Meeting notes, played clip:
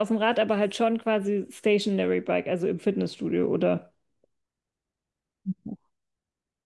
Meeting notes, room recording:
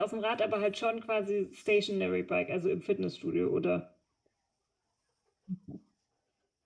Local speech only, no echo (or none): none